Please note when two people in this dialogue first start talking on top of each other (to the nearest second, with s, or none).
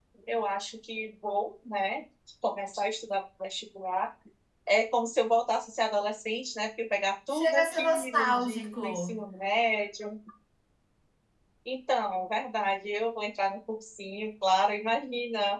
7 s